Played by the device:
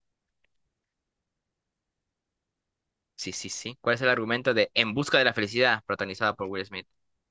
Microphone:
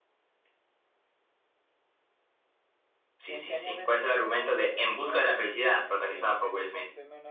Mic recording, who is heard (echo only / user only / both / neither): both